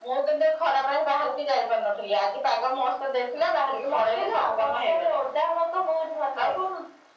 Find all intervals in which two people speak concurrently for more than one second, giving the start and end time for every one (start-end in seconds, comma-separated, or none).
3.8-5.2